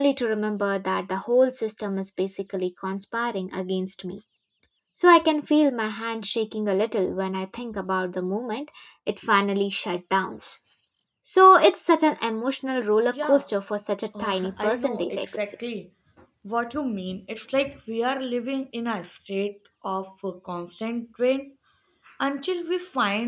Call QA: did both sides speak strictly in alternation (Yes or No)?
No